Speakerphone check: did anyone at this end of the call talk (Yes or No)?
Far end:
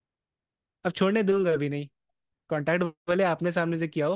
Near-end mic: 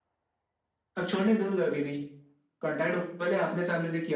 No